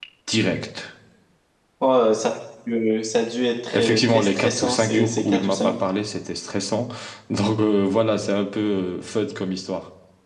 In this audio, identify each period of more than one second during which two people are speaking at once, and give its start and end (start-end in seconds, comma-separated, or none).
3.7-5.7